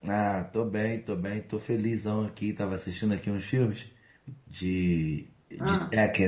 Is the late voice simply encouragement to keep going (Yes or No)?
Yes